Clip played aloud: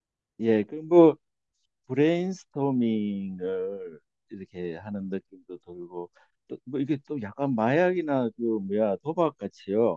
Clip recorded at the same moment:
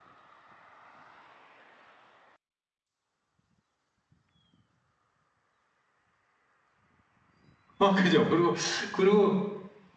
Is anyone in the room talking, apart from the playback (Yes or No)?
Yes